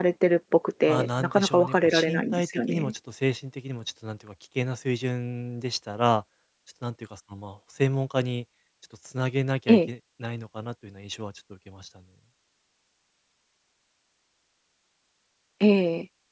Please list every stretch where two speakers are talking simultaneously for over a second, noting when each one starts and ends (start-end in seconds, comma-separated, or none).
0.9-2.9